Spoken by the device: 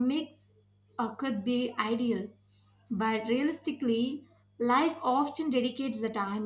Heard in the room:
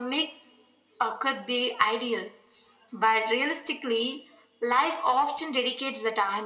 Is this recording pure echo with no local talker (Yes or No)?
Yes